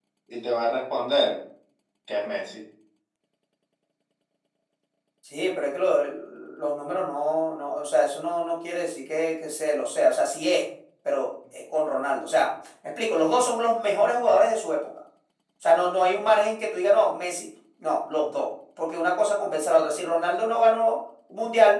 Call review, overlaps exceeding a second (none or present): none